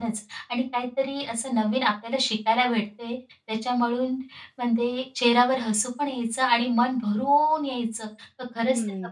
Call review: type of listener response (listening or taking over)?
taking over